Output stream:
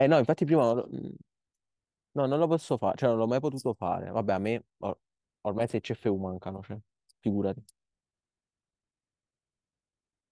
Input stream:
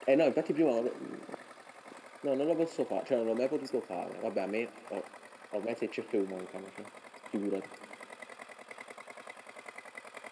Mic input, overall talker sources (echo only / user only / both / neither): echo only